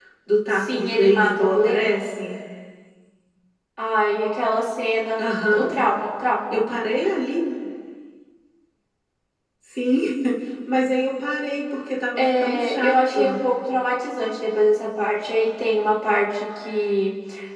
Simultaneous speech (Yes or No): Yes